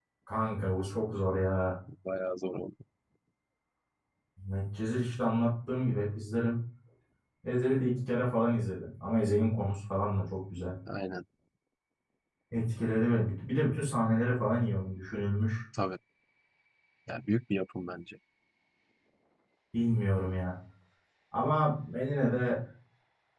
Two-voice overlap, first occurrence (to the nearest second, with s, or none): none